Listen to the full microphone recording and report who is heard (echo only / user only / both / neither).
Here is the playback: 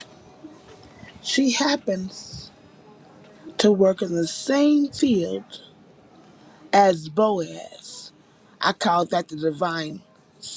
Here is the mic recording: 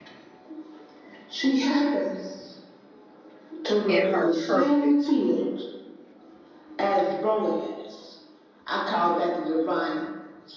both